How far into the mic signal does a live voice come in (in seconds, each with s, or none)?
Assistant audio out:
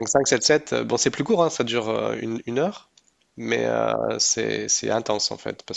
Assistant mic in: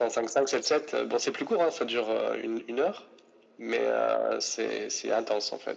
none